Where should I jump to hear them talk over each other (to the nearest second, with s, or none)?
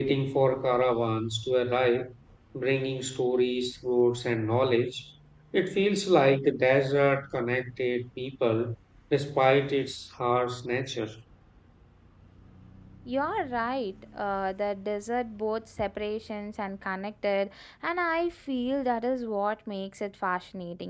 none